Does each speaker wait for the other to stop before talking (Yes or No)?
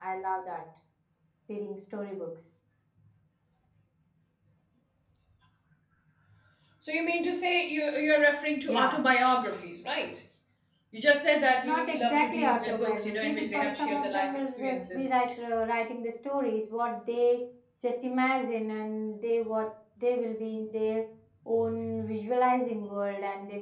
No